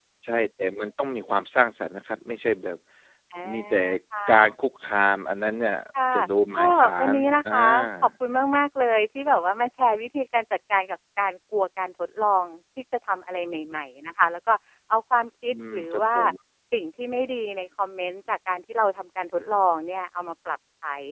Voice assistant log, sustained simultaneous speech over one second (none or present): present